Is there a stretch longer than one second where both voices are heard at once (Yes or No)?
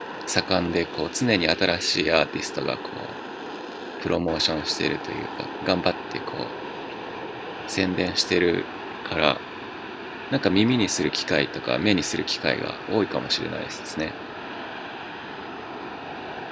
No